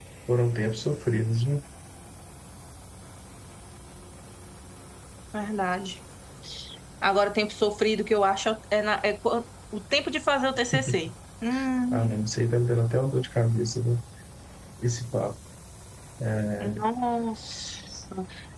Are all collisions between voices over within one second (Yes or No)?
Yes